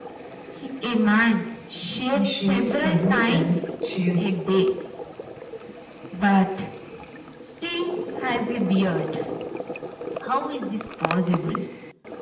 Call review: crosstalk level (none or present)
present